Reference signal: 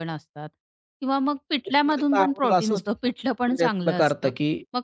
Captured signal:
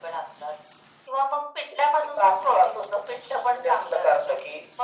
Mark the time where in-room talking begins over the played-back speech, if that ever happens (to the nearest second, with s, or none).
none